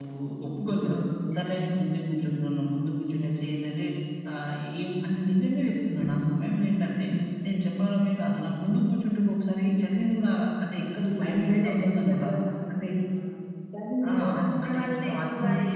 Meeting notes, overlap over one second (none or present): present